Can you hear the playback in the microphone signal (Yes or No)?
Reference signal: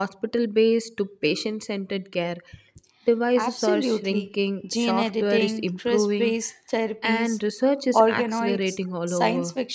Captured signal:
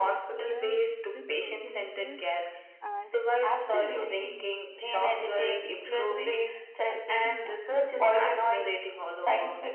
Yes